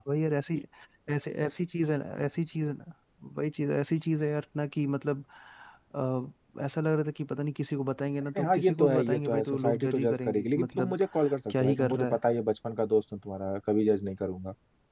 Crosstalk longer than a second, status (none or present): present